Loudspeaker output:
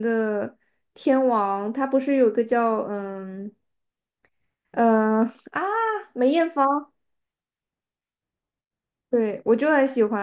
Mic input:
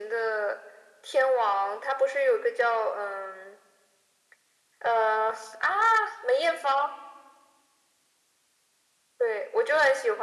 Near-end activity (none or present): none